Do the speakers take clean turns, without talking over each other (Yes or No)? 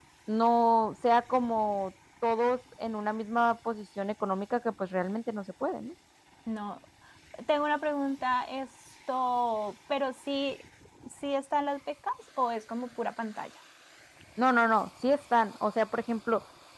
Yes